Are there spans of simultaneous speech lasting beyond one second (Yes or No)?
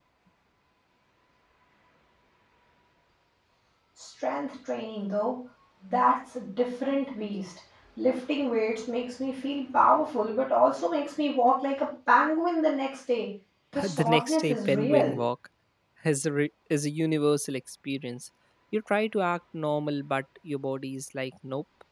Yes